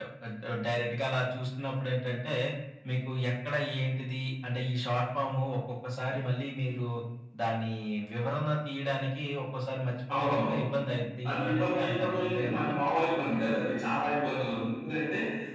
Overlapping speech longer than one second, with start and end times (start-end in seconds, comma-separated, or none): 11.3-12.7